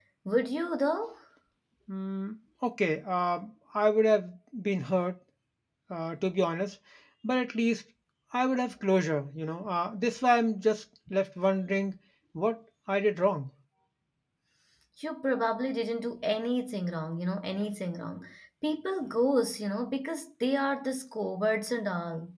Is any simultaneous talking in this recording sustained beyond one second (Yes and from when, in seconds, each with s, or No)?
No